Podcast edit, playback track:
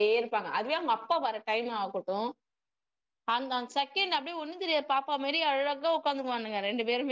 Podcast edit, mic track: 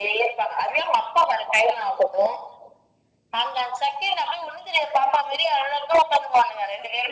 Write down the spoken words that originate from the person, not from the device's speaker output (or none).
none